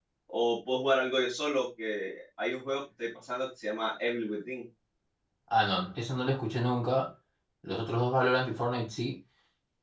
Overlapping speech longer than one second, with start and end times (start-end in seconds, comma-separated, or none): none